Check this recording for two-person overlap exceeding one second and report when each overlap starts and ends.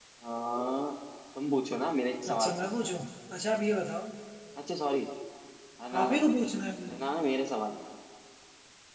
none

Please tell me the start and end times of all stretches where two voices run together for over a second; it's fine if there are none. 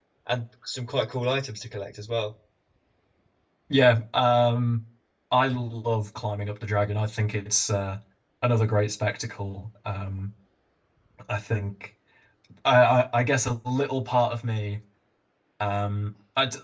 none

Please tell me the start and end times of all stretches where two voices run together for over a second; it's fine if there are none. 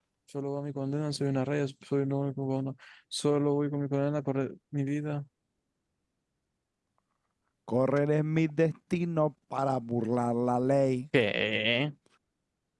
none

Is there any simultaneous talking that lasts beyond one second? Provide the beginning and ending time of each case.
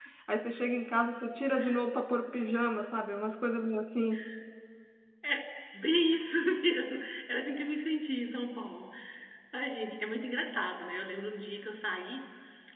none

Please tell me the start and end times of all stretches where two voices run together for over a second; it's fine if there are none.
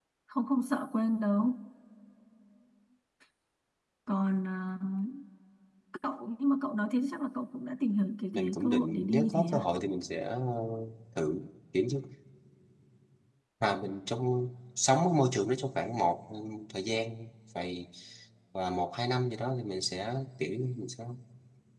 8.3-9.6

